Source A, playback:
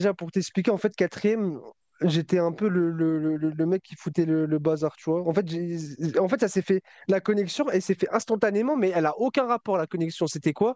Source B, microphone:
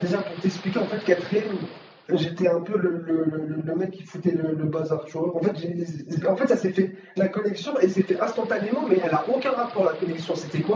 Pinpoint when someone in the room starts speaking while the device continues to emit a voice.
none

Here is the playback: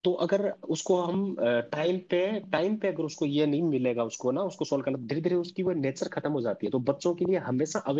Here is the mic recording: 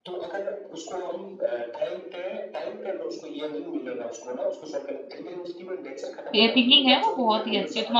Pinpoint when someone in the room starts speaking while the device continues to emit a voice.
6.3 s

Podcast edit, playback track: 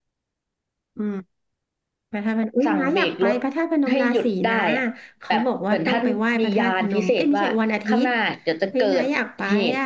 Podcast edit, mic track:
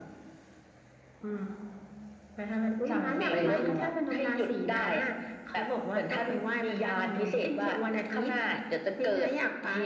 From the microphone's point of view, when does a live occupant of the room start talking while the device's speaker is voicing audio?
3.2 s

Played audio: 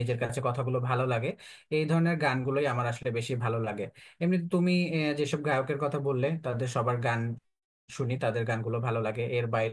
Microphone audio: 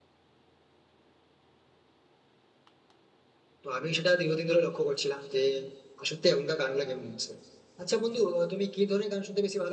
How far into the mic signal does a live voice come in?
3.6 s

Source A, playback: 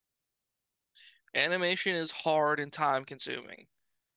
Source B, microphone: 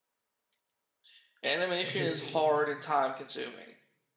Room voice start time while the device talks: 1.8 s

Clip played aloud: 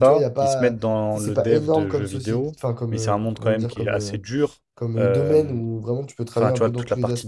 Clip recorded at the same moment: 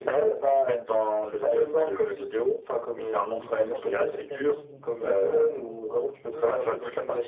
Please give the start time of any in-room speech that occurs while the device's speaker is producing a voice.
3.4 s

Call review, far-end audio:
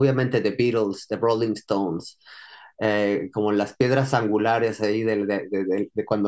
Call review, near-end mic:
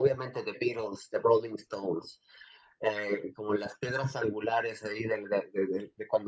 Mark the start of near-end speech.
none

